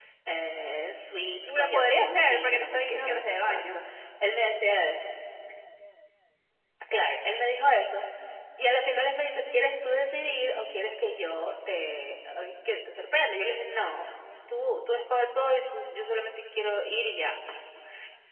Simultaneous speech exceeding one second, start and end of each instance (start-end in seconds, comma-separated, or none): 1.5-3.8